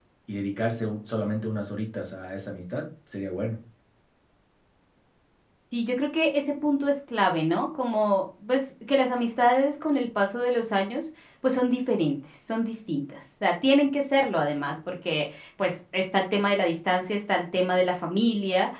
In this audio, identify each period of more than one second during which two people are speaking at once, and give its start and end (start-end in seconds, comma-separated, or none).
none